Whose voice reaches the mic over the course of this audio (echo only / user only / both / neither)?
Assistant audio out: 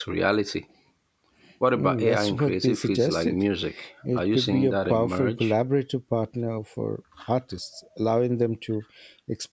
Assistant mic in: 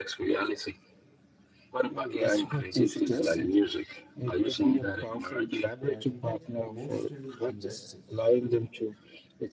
both